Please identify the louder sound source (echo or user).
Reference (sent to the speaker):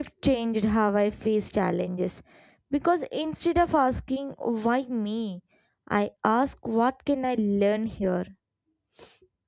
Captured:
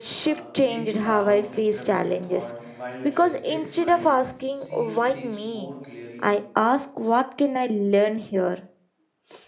echo